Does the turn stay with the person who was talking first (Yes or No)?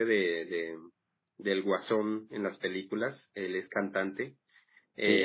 Yes